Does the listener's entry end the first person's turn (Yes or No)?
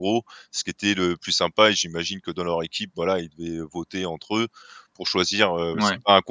No